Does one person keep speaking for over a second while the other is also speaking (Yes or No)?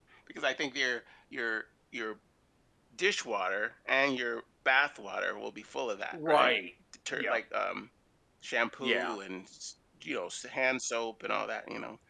No